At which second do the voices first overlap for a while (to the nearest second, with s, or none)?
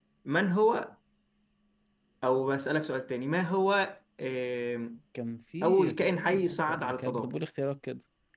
6 s